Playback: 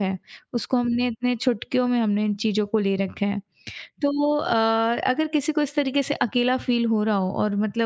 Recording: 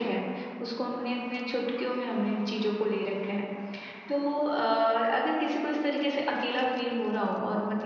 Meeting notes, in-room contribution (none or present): none